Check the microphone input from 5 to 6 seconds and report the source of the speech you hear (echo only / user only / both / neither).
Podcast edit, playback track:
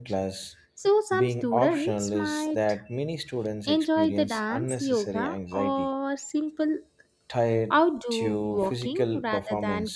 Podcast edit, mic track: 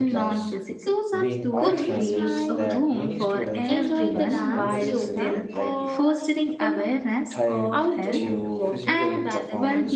both